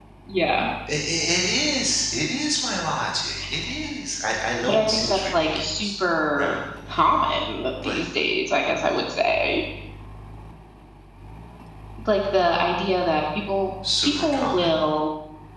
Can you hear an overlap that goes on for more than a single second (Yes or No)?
Yes